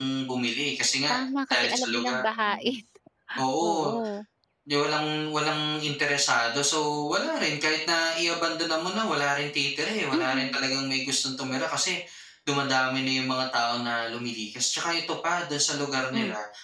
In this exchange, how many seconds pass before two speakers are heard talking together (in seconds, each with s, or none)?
1.5 s